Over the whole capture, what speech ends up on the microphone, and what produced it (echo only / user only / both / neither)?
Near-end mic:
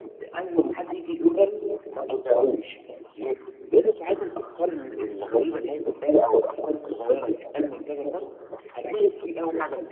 echo only